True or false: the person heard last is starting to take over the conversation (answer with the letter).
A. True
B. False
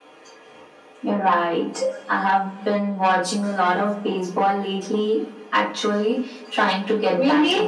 A